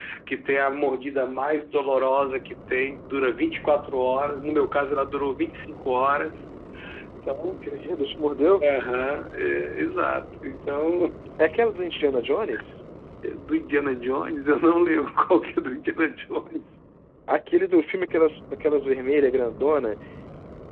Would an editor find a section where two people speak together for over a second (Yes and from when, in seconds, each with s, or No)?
No